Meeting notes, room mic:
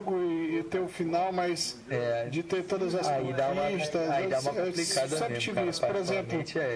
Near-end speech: present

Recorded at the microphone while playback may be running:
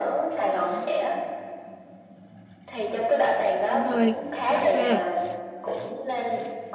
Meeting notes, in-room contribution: present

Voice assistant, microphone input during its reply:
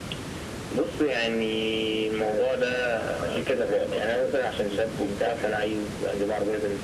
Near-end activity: none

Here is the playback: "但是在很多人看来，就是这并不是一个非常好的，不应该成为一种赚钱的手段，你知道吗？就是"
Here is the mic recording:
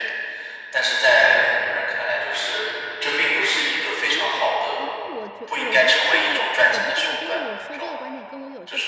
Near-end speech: present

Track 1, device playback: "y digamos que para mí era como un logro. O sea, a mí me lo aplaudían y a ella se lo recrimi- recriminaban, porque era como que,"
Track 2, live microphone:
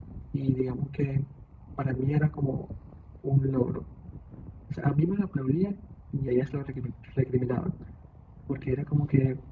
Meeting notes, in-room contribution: none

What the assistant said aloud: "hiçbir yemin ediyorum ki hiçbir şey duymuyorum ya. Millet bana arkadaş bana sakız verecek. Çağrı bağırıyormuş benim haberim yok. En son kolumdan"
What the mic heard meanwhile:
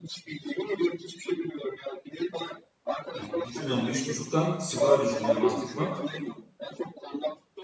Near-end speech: present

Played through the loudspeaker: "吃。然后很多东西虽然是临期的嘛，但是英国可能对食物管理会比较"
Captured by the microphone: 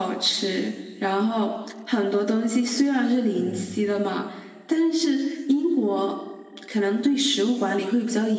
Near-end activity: present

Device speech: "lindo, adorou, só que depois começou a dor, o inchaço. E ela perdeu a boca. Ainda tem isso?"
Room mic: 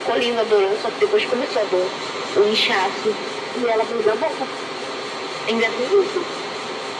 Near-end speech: none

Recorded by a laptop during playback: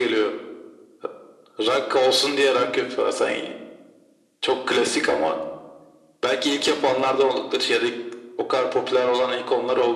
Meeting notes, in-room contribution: none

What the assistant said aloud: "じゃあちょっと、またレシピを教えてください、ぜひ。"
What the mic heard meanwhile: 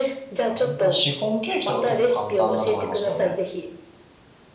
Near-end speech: present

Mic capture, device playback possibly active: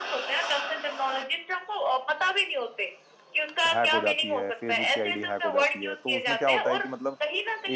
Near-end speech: present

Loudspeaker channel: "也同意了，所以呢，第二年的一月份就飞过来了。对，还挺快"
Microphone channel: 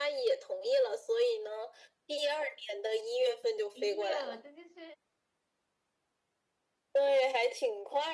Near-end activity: present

